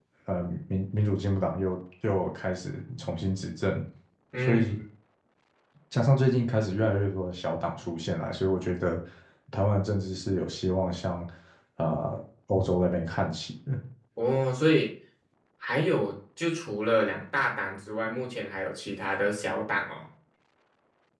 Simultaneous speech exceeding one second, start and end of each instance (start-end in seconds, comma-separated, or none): none